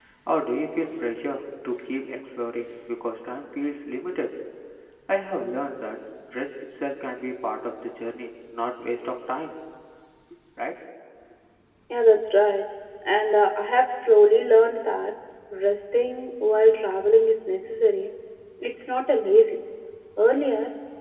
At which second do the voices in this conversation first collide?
none

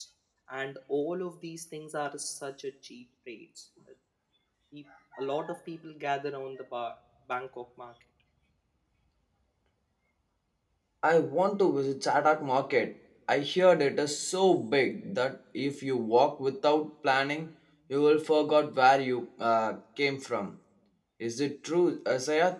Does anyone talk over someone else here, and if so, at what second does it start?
none

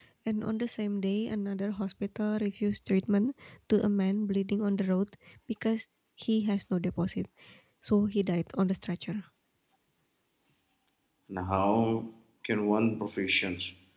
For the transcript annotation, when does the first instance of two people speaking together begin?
none

